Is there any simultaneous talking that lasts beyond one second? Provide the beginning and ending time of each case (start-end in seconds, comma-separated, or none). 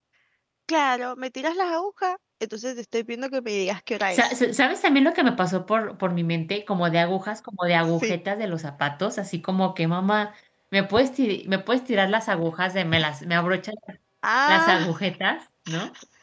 none